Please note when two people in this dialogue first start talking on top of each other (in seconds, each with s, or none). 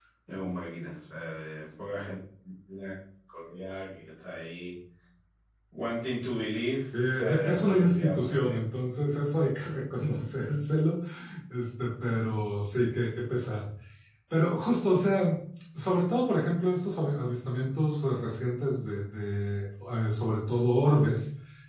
7.1 s